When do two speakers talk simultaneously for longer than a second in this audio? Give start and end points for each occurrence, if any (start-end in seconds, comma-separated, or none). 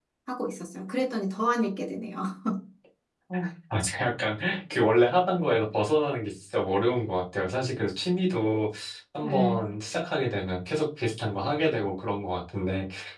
none